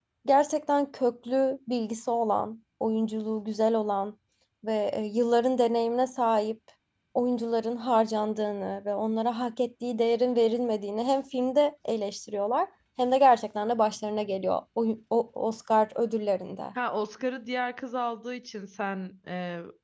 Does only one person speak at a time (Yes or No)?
Yes